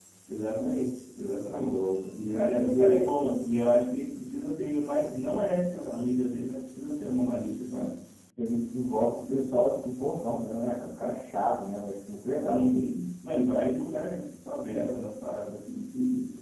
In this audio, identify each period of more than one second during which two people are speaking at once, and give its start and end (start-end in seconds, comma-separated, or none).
1.5-3.1